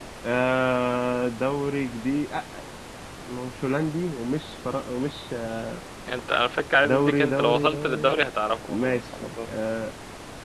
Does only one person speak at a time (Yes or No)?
No